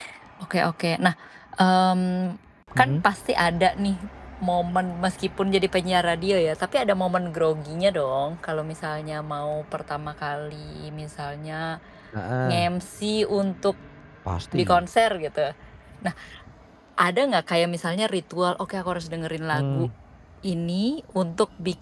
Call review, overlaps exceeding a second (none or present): none